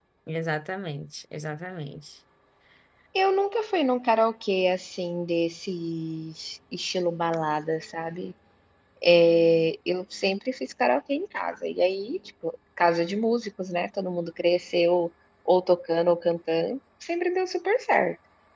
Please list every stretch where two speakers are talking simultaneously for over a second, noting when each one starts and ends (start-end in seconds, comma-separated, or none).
none